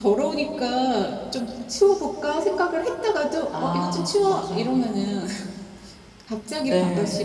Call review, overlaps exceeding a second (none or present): present